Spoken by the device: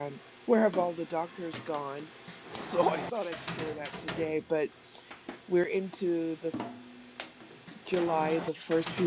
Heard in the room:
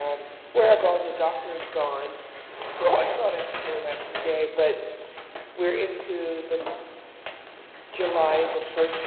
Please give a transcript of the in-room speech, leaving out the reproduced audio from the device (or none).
none